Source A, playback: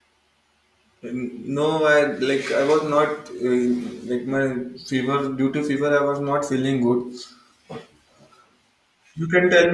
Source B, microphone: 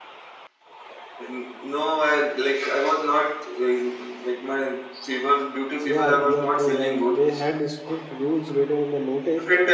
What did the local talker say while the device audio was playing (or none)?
Yeah, you're true. And they had strict rules written in the notice